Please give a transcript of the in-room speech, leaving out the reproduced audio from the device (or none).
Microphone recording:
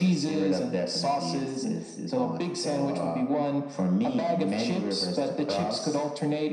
none